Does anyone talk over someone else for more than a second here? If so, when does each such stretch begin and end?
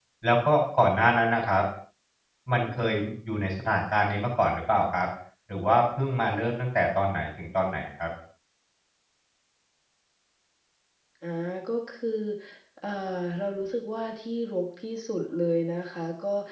none

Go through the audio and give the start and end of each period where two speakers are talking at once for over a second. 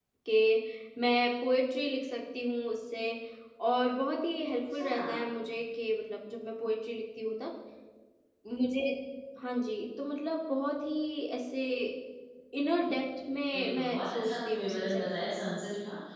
13.5-15.3

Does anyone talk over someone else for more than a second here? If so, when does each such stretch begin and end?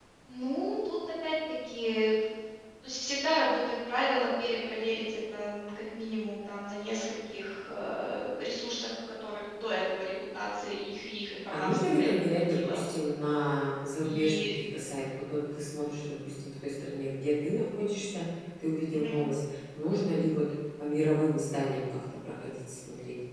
11.5-12.8

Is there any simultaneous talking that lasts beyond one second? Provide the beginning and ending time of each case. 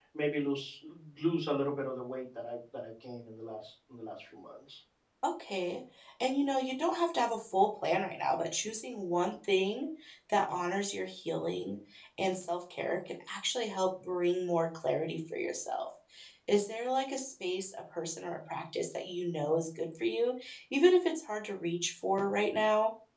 none

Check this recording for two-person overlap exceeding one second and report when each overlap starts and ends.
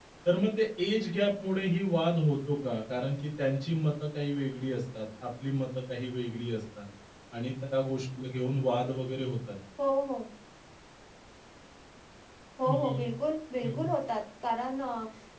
none

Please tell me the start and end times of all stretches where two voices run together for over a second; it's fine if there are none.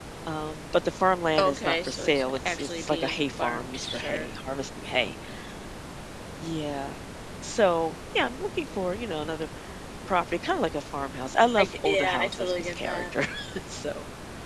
1.4-4.3, 11.6-13.1

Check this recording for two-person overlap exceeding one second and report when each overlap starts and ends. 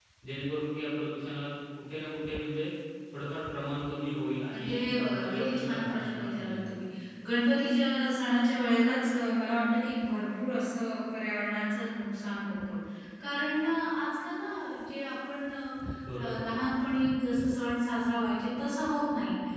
4.5-6.6

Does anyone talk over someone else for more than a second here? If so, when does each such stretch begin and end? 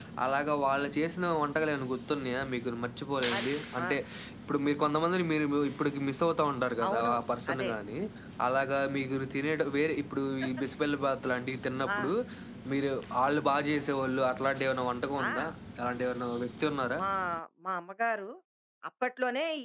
none

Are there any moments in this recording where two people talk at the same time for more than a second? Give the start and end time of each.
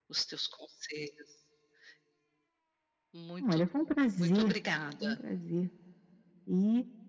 none

